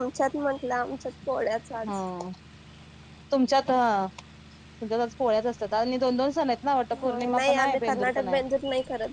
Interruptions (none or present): present